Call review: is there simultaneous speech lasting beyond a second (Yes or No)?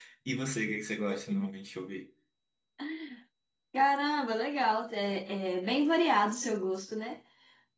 No